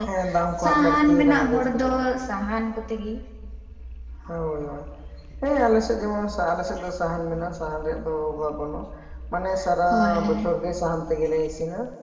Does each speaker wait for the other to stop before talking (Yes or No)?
No